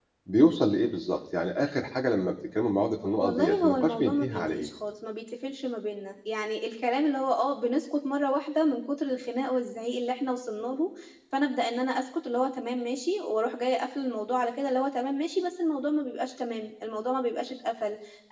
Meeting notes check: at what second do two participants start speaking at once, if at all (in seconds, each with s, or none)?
3.2 s